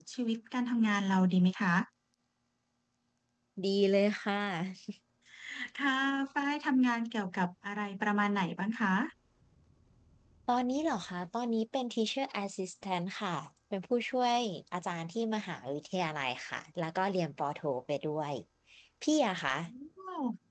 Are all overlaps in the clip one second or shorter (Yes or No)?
Yes